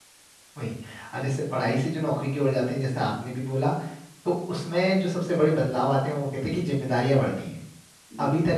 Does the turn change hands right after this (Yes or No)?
No